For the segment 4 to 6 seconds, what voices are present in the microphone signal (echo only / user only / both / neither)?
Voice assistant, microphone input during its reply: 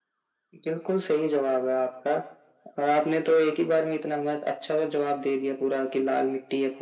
echo only